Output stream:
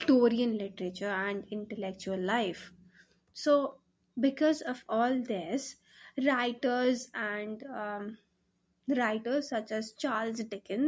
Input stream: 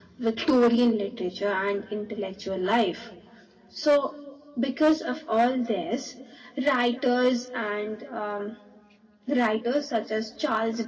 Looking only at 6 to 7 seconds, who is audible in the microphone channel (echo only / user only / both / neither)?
echo only